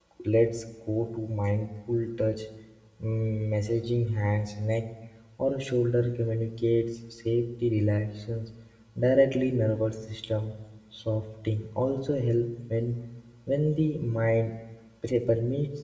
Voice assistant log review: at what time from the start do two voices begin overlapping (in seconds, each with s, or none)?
none